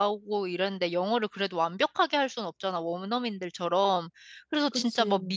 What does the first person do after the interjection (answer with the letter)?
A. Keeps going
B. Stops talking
A